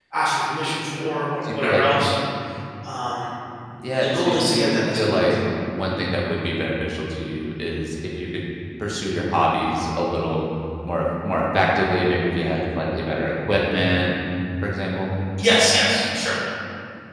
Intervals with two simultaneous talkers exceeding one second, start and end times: 3.9-5.2

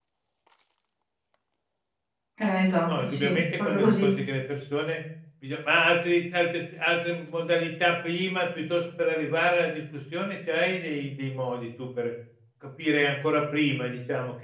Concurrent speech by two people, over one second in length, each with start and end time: 2.9-4.1

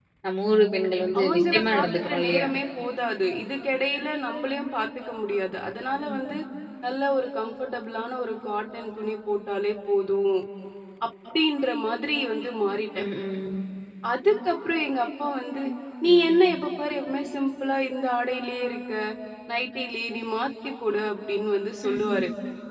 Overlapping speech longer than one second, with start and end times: 1.2-2.5

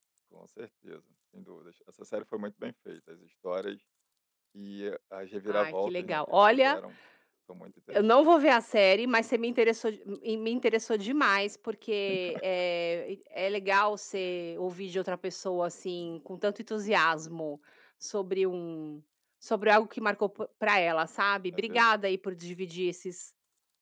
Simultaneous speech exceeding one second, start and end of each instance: 5.5-6.8

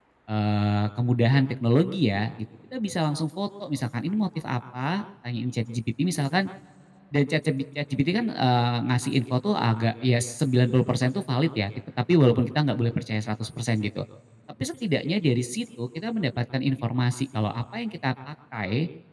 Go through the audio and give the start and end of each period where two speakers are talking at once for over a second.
none

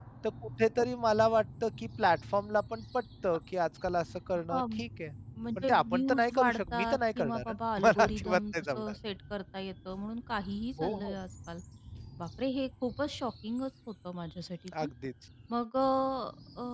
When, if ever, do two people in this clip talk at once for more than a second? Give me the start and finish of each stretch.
5.6-8.9

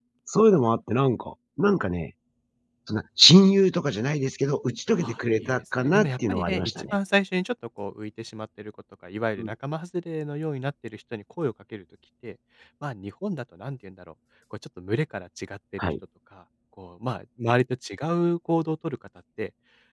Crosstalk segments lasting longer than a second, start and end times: 5.0-7.0

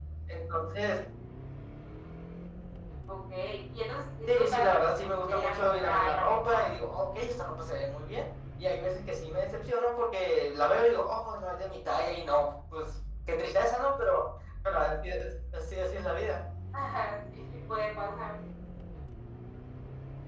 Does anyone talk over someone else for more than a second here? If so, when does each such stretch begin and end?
4.3-6.7

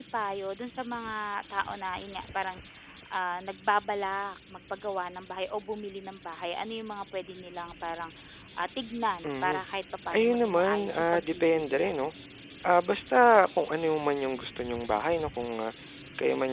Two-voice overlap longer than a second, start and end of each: 10.2-11.9

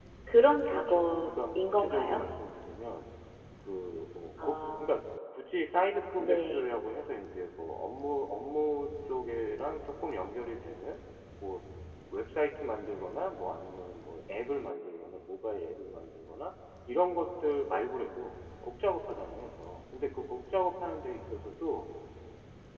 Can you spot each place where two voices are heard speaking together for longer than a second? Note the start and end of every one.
0.7-2.2

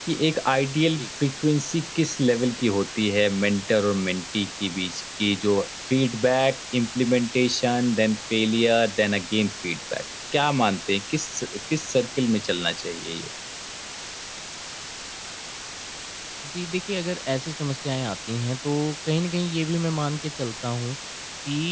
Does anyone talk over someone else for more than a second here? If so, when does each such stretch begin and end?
none

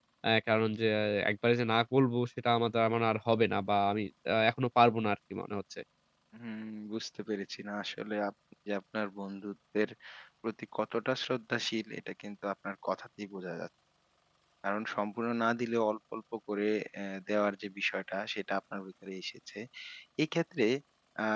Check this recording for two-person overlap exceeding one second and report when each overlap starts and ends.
none

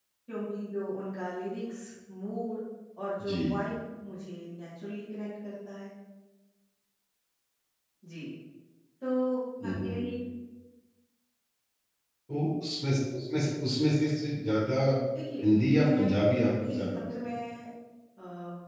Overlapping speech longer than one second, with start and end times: 15.7-17.4

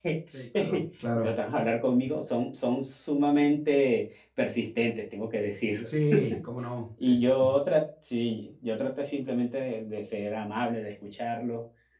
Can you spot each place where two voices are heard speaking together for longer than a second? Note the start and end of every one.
none

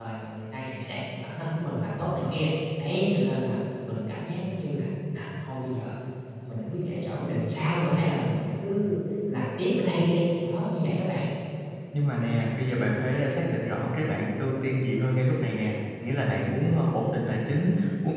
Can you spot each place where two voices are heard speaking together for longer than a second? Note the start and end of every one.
none

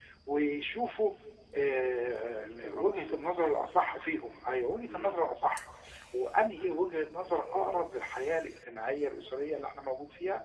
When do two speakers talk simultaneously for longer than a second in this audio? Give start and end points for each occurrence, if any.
2.4-4.0

